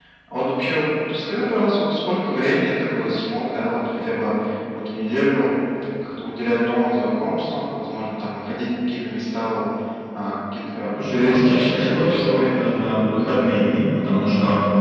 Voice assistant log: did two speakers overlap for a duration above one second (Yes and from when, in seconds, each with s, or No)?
Yes, from 11.0 s